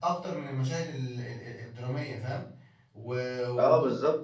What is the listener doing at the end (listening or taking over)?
taking over